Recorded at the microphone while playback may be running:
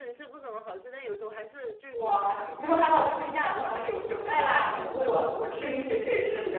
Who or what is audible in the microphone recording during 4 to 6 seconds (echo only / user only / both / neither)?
both